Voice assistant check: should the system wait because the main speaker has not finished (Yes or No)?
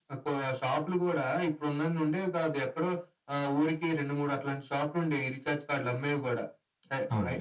Yes